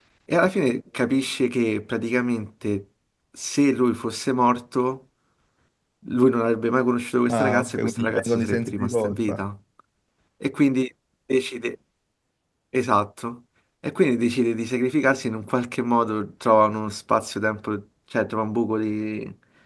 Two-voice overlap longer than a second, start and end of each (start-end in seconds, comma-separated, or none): 7.3-9.5